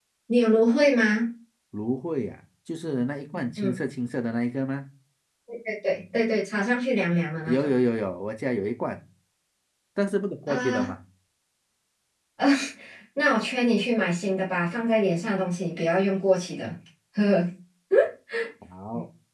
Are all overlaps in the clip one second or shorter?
Yes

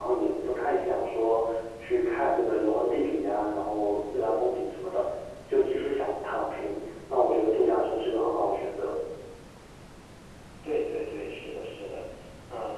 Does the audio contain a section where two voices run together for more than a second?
No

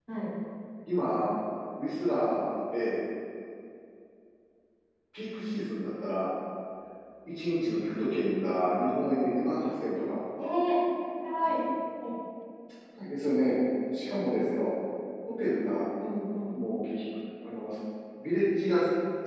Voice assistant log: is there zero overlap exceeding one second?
Yes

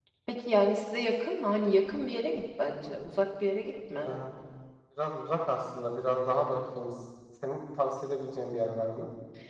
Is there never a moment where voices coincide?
Yes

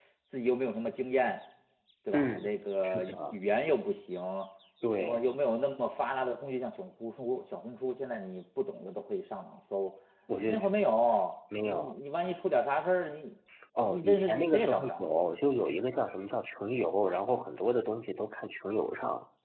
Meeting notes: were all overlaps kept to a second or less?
No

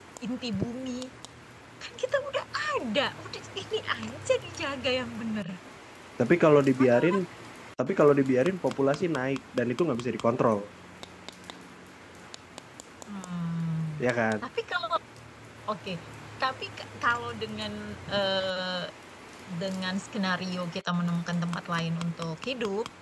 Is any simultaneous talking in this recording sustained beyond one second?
No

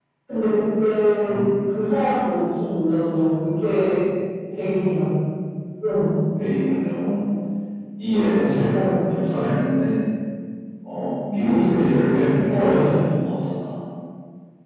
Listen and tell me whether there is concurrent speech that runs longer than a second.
No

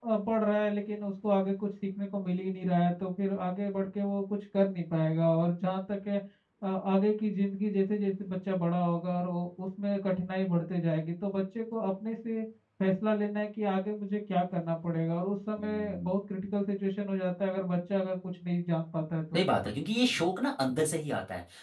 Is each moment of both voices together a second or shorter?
Yes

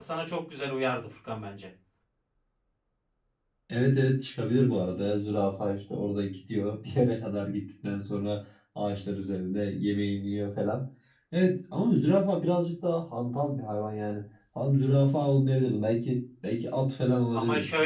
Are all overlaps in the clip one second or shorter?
Yes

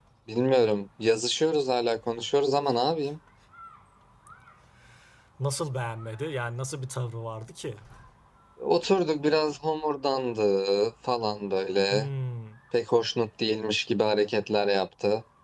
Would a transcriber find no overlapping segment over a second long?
Yes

